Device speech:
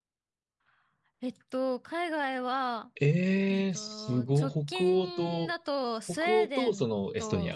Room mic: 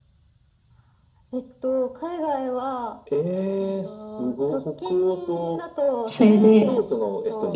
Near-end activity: present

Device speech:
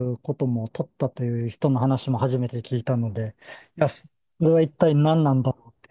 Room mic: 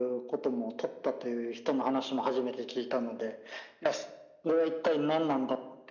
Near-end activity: none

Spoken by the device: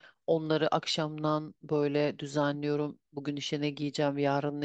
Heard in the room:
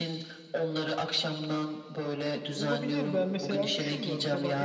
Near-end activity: present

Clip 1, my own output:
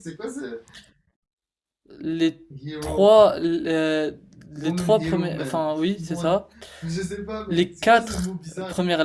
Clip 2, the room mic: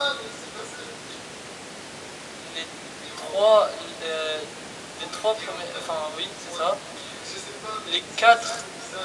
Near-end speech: none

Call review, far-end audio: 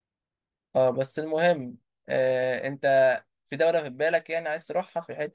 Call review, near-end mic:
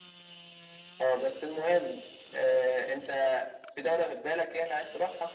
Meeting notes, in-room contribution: none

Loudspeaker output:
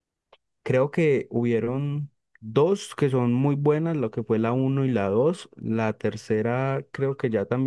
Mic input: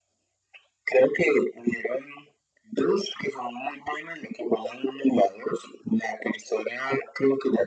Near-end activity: none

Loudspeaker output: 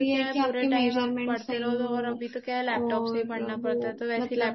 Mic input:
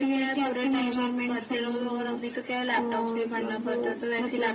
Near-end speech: none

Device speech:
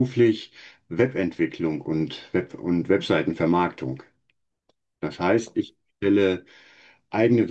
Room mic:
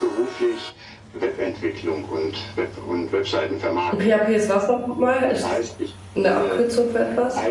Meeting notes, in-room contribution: present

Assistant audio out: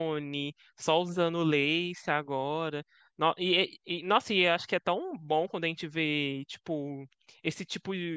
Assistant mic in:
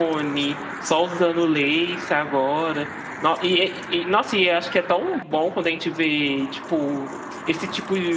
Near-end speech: none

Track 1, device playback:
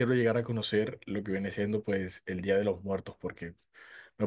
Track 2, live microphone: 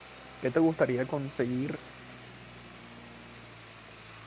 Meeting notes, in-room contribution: present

